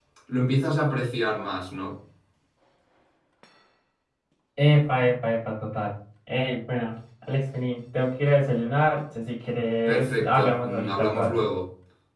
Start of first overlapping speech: 9.9 s

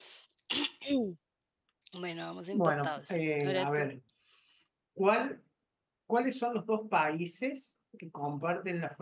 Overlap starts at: 2.5 s

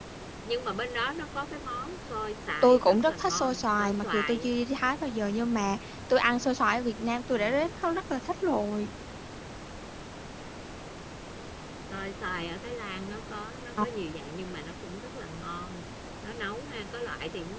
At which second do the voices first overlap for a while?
2.6 s

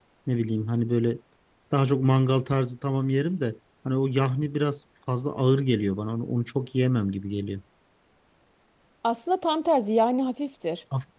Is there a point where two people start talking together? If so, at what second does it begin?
none

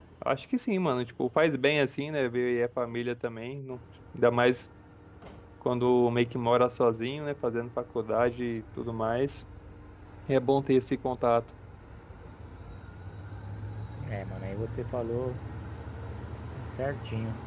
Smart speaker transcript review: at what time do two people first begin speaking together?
none

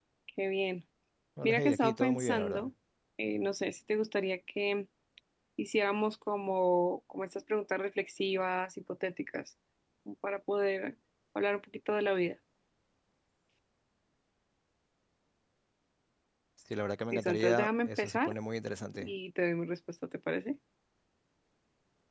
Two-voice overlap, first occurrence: 1.4 s

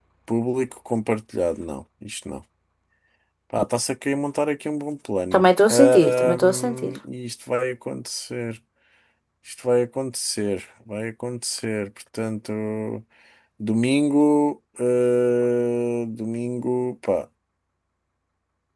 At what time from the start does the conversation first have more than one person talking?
5.3 s

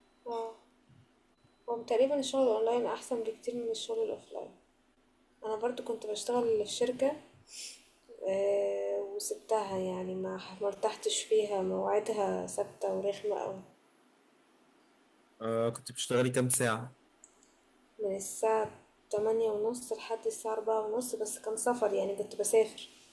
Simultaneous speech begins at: none

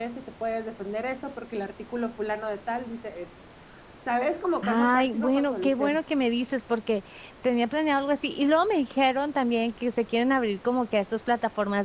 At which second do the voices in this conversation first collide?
4.6 s

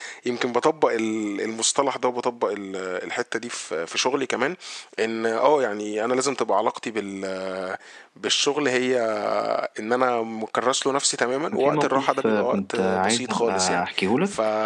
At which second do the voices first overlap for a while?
11.5 s

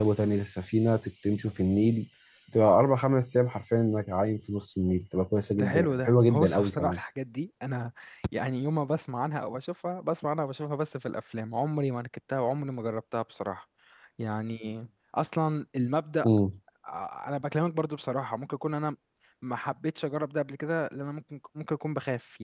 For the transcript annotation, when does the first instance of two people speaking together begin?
5.5 s

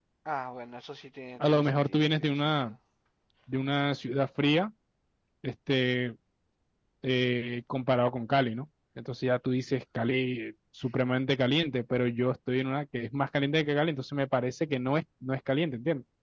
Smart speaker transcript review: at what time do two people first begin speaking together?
1.4 s

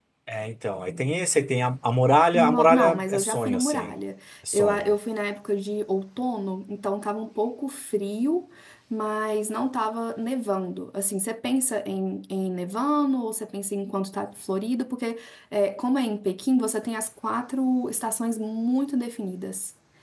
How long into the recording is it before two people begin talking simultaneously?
2.4 s

